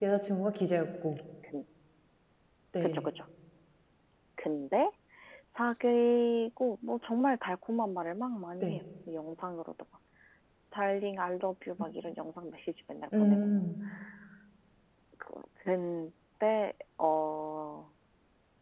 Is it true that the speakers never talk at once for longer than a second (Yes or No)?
Yes